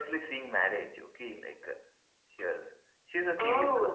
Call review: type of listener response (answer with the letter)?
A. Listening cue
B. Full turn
A